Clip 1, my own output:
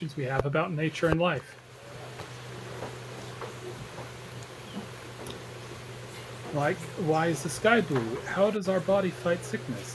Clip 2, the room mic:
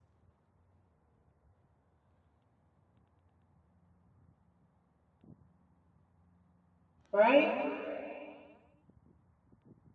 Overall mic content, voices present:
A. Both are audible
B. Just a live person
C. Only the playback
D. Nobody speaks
B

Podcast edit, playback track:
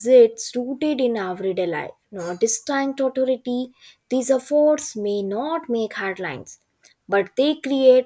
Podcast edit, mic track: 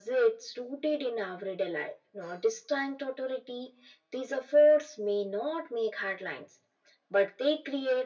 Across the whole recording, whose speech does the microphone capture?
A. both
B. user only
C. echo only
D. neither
C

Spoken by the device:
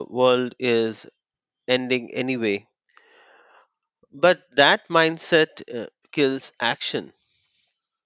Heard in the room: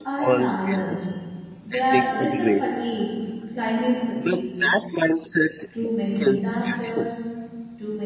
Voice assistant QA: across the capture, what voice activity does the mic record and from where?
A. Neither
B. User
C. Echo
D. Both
D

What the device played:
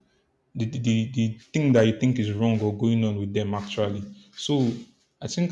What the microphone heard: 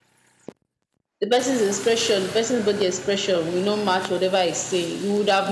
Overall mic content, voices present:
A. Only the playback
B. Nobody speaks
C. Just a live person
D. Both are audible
C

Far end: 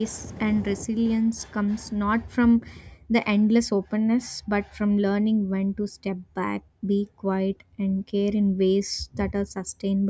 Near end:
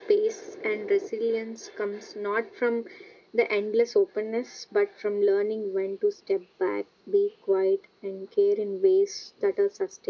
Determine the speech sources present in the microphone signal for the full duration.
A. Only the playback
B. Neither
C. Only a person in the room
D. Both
A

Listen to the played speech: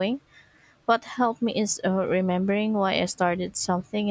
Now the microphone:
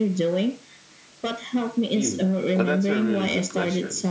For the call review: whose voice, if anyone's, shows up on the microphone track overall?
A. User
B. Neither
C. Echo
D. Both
D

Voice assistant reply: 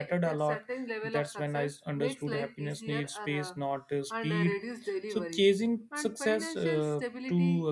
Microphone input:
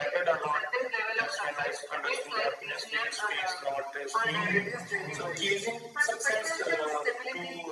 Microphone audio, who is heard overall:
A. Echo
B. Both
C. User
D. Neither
B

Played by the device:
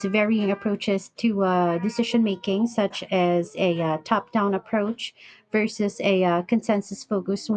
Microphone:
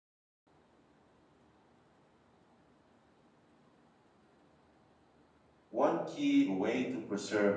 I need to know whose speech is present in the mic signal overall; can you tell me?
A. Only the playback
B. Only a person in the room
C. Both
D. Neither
B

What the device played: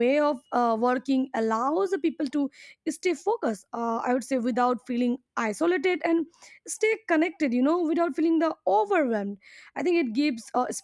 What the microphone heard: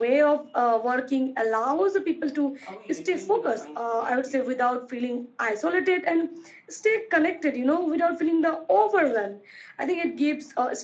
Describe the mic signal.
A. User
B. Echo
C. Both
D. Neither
C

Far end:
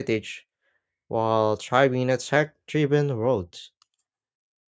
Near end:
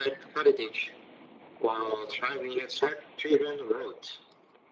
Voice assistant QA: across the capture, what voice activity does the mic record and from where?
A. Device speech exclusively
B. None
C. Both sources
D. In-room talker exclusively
A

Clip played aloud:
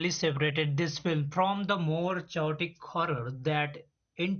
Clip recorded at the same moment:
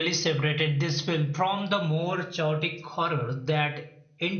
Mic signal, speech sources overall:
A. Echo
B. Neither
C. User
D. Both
A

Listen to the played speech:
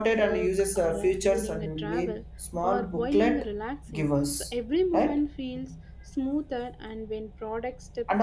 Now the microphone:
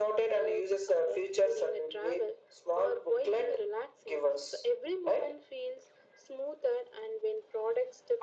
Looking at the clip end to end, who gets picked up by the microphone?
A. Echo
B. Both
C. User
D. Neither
A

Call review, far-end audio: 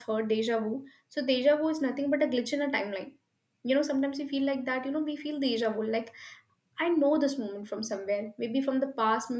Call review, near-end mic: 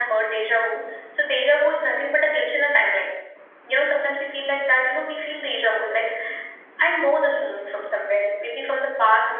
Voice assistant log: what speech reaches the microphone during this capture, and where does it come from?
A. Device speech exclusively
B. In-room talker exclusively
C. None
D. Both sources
A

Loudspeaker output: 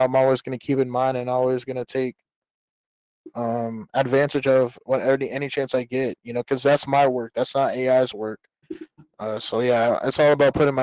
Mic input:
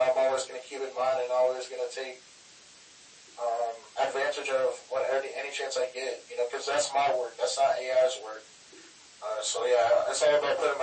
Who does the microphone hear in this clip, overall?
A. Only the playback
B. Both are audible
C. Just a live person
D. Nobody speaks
A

